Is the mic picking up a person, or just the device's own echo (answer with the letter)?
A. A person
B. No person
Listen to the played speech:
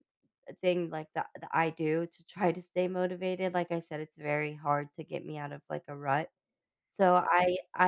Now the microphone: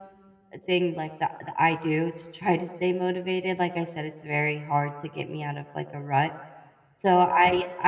B